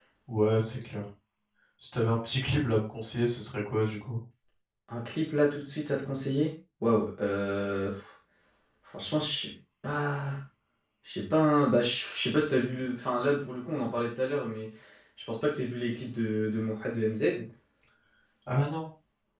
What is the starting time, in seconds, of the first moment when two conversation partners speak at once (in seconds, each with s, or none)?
none